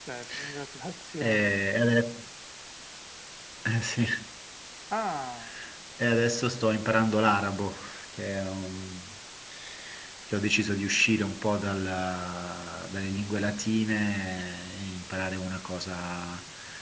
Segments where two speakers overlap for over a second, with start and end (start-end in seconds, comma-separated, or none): none